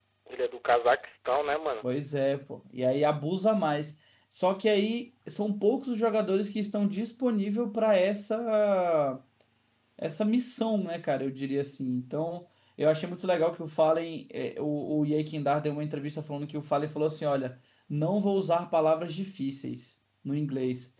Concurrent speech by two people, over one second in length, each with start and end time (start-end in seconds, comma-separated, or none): none